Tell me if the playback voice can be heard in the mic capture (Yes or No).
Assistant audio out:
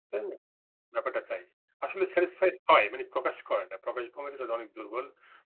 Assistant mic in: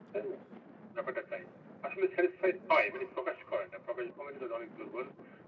Yes